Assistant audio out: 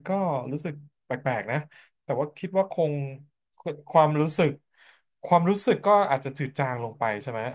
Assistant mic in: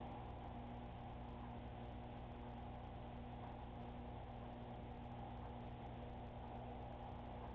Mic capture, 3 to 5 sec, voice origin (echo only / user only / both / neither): neither